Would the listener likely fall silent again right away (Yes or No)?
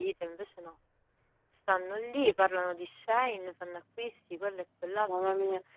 No